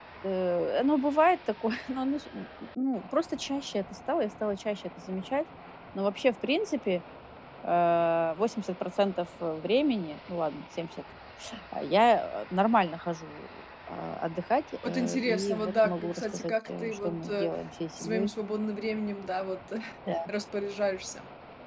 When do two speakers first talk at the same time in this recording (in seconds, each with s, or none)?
14.8 s